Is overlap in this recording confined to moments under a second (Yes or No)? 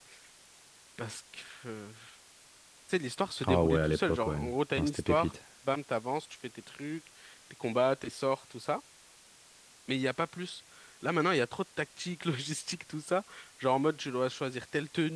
No